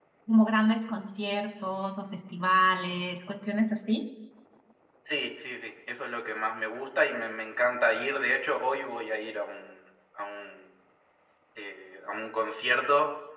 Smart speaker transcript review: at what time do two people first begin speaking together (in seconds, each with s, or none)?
none